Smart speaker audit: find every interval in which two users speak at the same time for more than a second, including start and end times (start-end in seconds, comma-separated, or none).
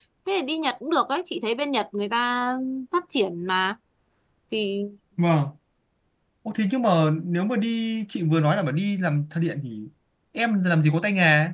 none